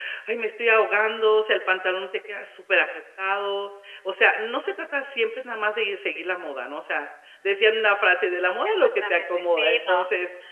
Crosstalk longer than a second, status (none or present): present